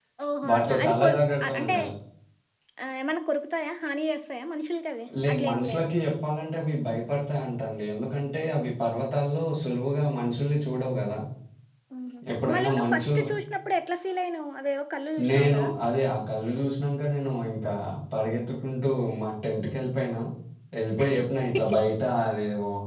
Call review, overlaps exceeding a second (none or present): present